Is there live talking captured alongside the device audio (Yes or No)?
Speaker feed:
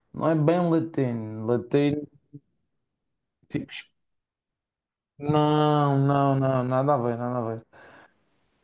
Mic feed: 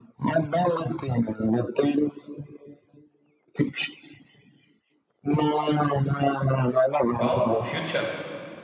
Yes